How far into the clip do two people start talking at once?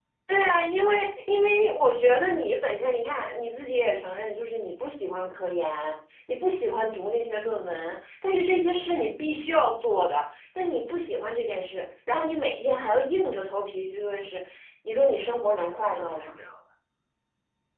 15 s

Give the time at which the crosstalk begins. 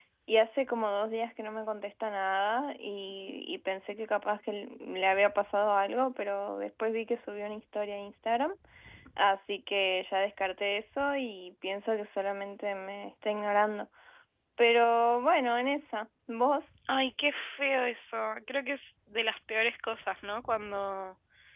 none

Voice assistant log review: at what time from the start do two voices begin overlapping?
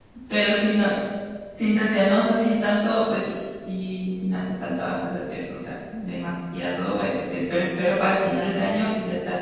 none

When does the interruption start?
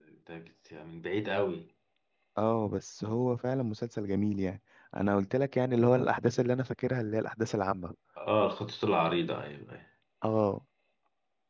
none

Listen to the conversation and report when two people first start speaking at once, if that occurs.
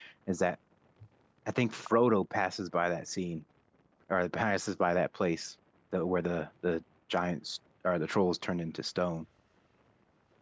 none

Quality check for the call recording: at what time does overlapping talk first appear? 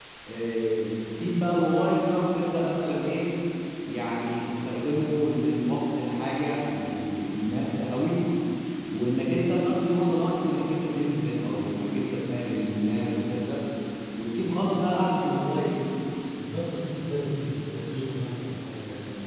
none

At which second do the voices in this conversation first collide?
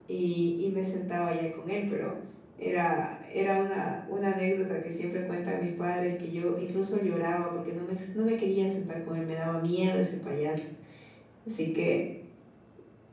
none

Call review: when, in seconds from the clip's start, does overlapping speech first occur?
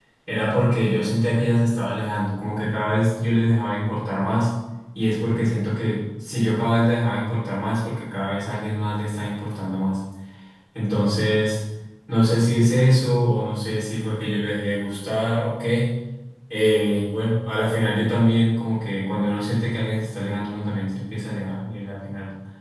none

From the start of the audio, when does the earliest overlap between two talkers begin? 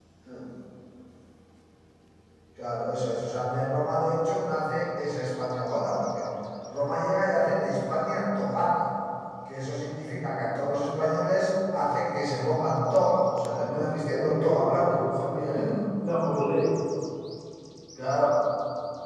14 s

